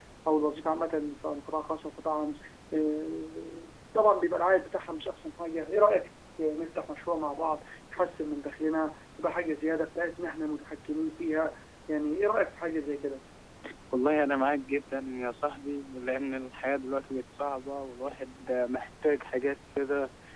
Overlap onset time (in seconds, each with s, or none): none